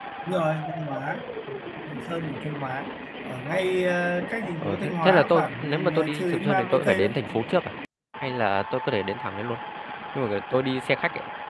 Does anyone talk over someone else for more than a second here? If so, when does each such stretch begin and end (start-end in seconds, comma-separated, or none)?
4.6-7.1